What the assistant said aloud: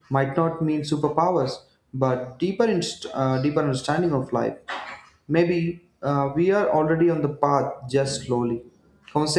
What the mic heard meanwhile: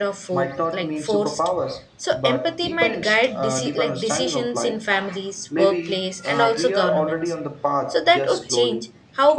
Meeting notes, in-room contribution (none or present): present